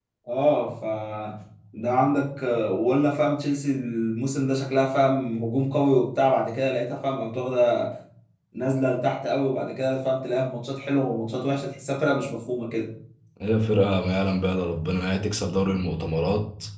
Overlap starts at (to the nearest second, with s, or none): none